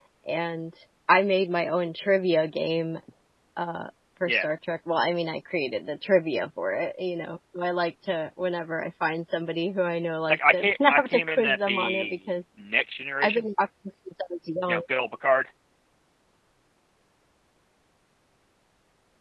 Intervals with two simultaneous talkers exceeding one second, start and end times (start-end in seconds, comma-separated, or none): 10.3-12.2